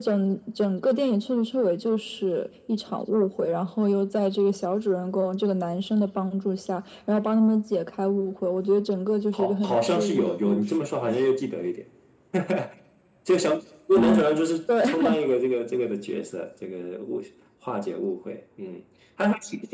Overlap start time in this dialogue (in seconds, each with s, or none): 9.3 s